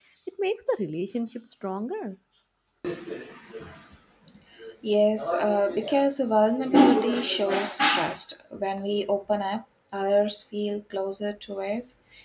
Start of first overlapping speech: none

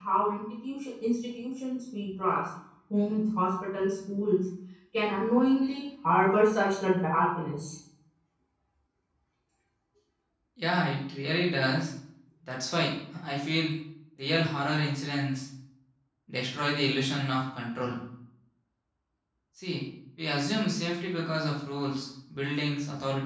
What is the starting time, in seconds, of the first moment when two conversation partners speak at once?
none

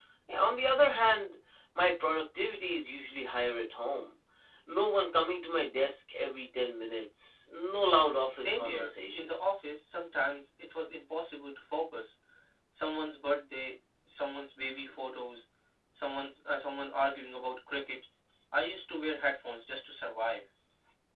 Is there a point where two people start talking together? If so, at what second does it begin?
8.3 s

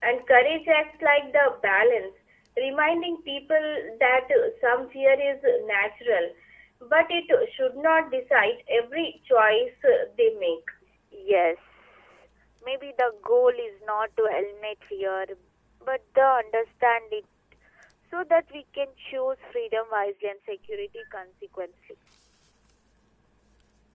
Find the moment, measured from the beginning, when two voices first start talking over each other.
none

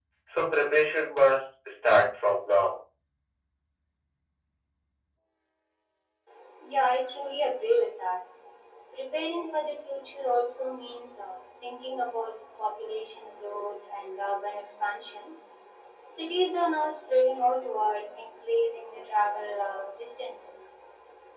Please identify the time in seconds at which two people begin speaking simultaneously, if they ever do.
none

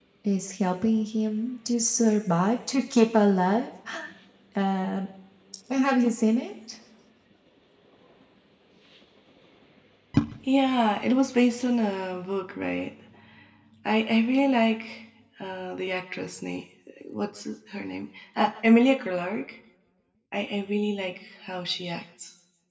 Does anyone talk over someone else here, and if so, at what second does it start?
none

